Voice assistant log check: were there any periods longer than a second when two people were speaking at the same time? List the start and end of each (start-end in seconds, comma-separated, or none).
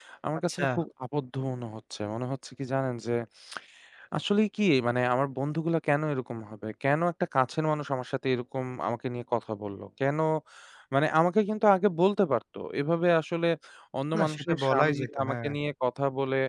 14.2-15.5